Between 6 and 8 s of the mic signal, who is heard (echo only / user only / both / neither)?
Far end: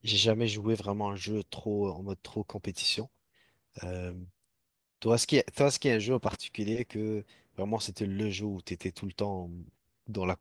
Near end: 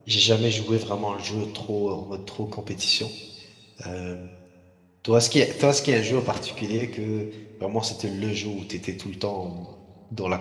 echo only